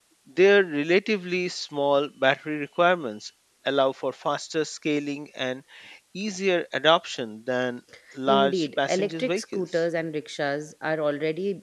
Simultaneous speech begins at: 8.3 s

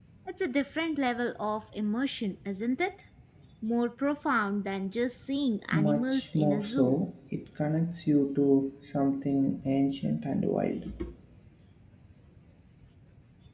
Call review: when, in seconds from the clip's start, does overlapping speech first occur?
5.7 s

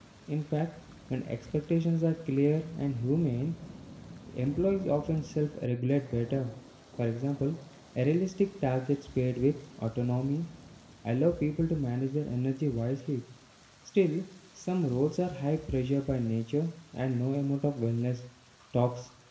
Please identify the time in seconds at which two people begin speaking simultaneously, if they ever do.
none

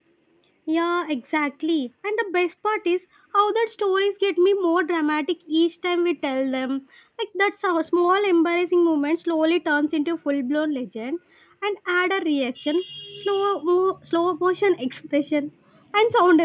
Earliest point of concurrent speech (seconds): none

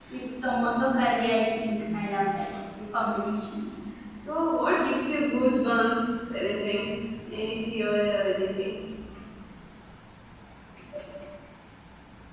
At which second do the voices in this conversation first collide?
none

